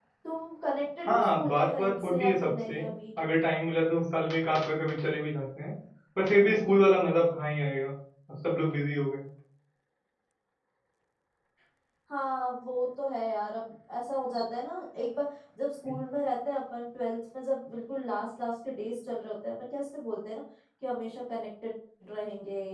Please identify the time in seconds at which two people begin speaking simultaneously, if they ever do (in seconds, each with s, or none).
1.1 s